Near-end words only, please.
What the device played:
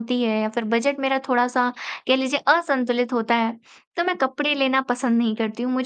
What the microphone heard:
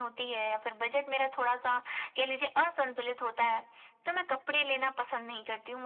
none

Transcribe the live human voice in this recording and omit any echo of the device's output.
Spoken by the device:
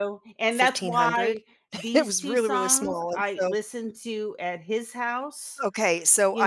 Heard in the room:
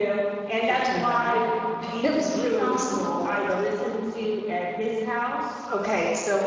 none

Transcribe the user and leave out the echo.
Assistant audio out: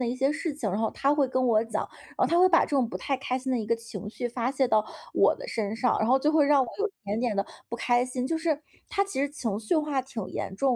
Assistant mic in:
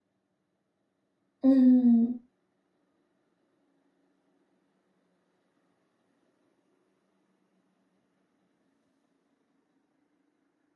嗯。

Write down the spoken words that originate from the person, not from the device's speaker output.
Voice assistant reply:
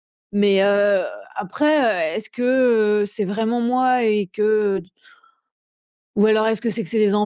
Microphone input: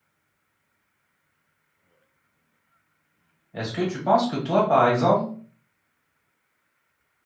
Est-ce que tu penses que toi, par exemple

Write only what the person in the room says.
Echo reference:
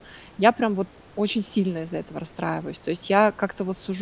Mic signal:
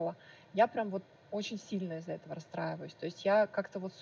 none

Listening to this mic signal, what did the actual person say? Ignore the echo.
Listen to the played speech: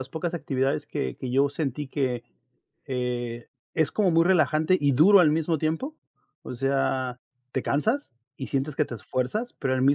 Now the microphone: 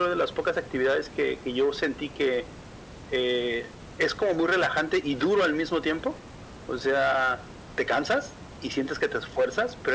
none

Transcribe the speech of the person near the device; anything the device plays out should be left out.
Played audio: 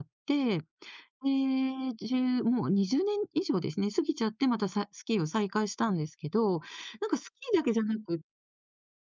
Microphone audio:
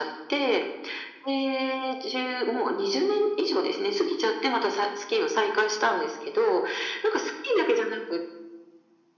none

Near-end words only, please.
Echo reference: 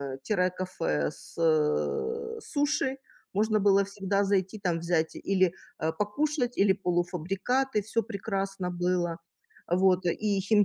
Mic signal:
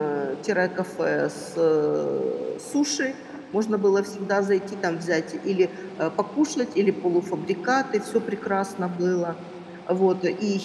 none

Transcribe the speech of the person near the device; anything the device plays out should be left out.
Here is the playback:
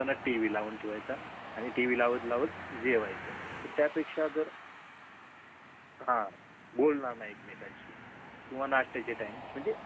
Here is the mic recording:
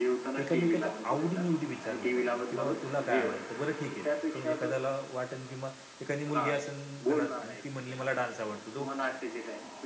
एकमेकाच्या आवडी-निवडी विचारल्या पाहिजेत, की "बाबा तुला काय आवडतं?" बरं ठीक आहे, तो एखाद्याला वाटेल किंवा एखादी मुलगी असेल घरात आणि ती म्हणली "मला डान्स आवडतो." तो

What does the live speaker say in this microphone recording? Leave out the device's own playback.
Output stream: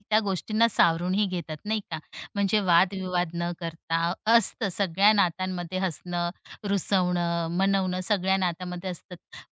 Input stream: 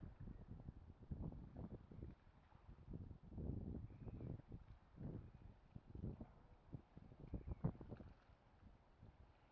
none

